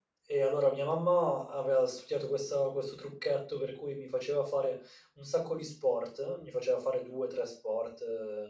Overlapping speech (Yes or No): No